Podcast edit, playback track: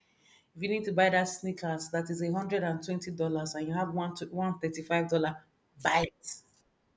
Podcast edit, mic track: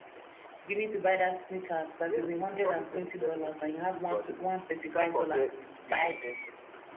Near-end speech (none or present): present